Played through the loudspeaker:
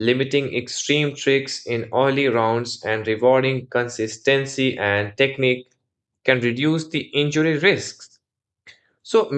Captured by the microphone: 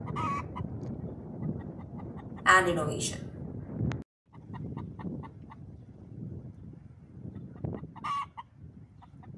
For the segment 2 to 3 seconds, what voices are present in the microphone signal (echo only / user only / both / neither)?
user only